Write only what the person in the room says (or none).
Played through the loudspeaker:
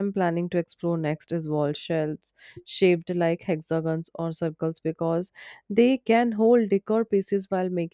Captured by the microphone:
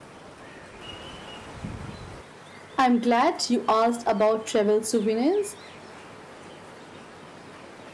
I'm glad you asked about travel souvenirs